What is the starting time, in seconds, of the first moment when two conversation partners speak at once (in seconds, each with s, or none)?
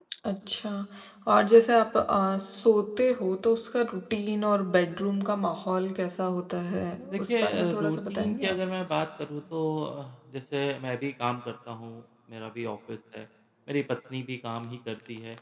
7.0 s